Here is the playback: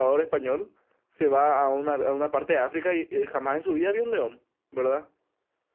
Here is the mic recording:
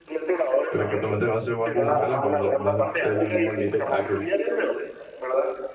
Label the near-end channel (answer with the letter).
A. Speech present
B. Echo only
A